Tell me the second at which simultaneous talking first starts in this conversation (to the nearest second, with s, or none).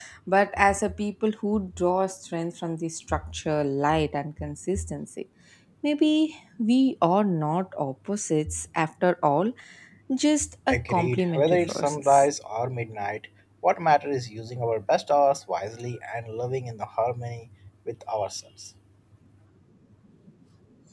11 s